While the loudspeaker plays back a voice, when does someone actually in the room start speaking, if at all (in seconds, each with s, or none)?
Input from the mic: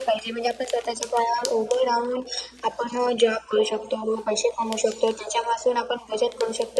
none